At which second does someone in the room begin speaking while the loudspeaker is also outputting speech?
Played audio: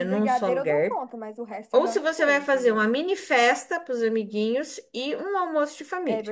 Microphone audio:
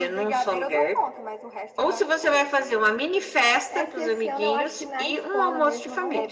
3.7 s

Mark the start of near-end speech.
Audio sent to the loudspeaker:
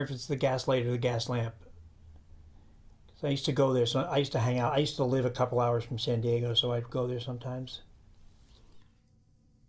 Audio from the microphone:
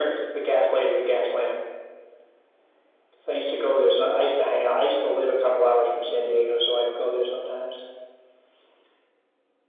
none

